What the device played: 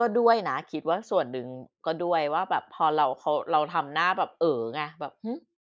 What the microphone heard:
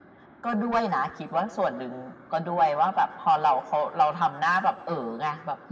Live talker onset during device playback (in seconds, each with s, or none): none